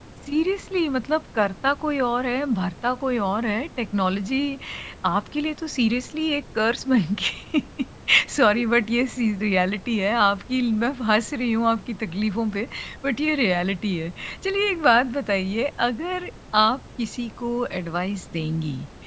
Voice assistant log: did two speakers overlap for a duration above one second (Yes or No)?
No